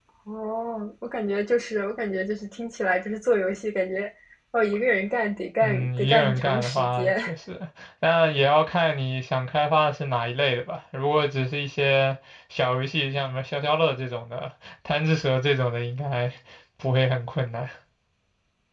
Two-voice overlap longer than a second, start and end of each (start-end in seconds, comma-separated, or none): 5.6-7.2